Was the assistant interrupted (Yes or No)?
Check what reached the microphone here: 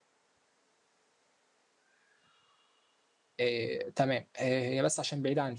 Yes